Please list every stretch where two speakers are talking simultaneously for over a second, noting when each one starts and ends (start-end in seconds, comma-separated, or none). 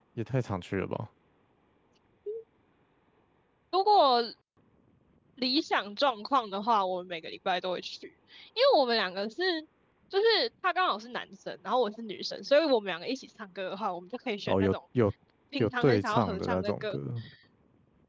15.6-17.0